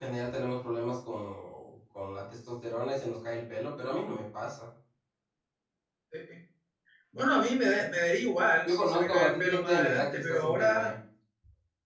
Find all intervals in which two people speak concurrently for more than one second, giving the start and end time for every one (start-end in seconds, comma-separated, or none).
8.6-10.9